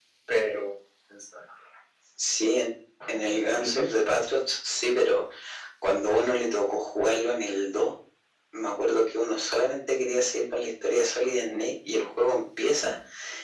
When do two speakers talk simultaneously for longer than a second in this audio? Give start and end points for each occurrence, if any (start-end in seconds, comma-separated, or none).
none